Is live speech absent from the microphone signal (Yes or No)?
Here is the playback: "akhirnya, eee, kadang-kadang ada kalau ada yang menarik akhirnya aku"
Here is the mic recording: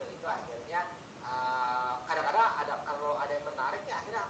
Yes